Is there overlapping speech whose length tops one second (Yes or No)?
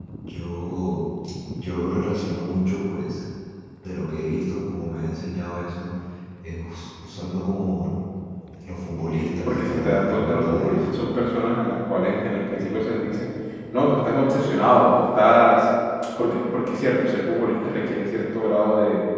Yes